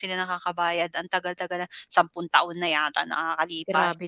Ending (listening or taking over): taking over